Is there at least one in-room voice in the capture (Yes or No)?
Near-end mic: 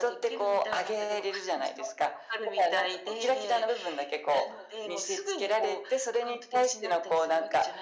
No